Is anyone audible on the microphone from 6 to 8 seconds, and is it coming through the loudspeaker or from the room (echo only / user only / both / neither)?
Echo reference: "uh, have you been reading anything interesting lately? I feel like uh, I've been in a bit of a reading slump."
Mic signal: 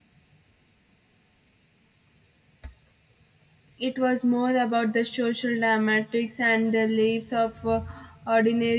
user only